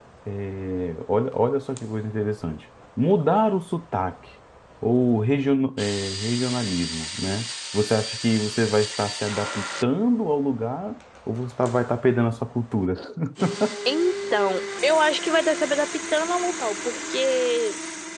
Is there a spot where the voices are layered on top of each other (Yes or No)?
No